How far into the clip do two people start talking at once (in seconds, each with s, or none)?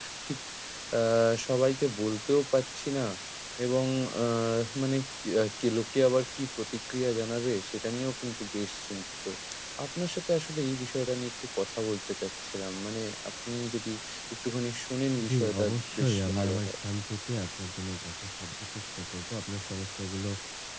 15.2 s